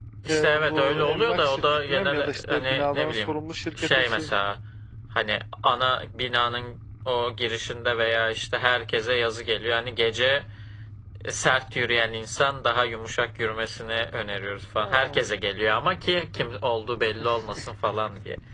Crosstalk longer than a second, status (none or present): present